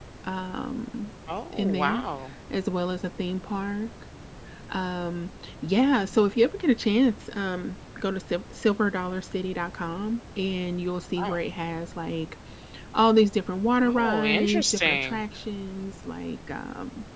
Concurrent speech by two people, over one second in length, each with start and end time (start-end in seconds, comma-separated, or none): 13.8-15.2